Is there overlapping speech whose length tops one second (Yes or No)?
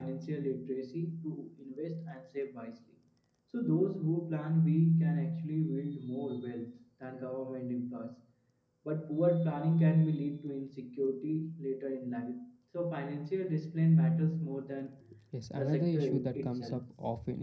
Yes